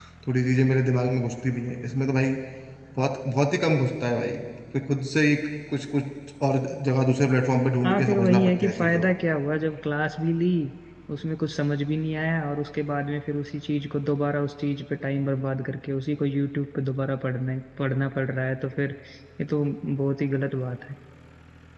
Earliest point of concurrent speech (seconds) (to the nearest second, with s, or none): 8 s